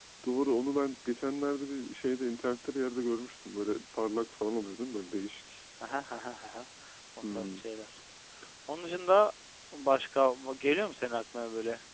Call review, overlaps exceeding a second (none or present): none